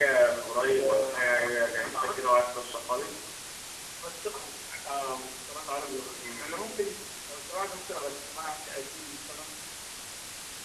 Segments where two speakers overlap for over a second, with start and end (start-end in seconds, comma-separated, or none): 0.7-2.3